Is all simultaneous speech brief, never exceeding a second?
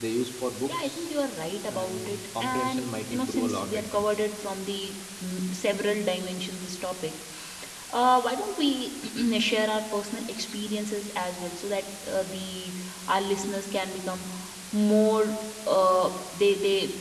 No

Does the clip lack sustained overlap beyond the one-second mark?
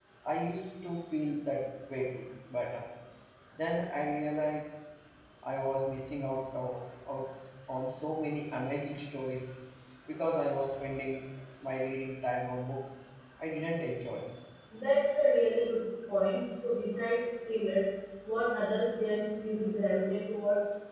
Yes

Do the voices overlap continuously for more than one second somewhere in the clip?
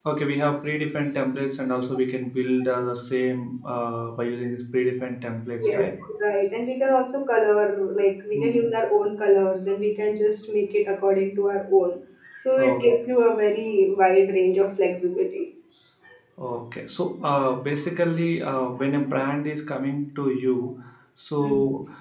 No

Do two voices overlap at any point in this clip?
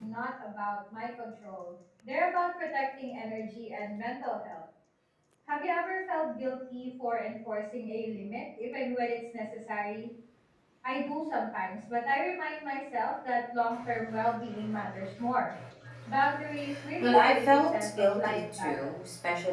Yes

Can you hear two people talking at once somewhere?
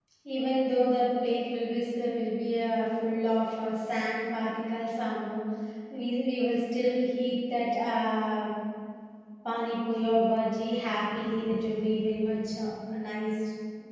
No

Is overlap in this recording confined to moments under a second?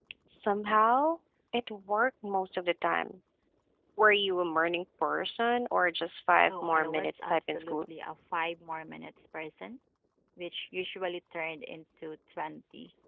No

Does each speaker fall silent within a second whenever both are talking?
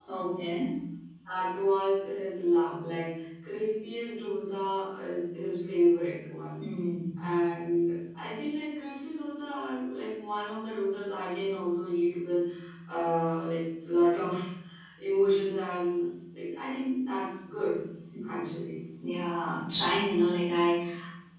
Yes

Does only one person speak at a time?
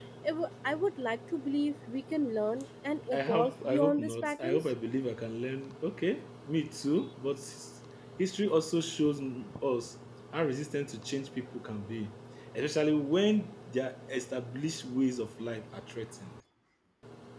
No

